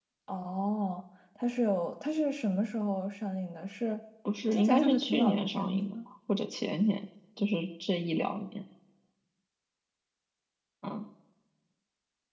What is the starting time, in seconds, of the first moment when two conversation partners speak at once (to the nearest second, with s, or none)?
5 s